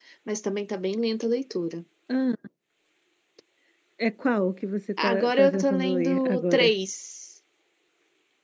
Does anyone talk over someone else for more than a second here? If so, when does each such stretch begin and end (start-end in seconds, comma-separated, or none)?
5.0-6.7